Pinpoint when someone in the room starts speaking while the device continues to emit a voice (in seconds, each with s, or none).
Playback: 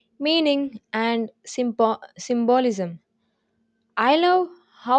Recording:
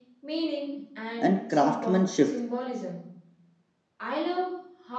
1.2 s